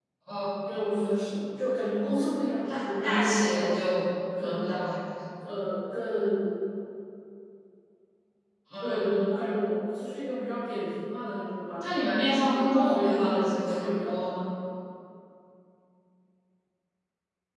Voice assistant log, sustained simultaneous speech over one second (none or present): present